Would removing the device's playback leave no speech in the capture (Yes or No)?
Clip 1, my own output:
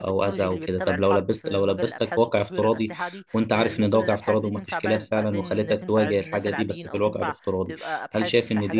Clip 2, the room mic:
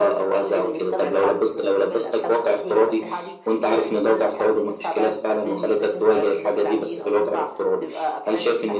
Yes